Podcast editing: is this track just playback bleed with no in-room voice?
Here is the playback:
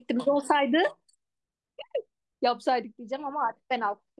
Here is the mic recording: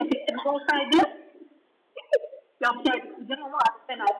Yes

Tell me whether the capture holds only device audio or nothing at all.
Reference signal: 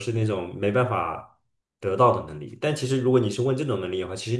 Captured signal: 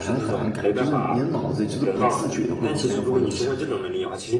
No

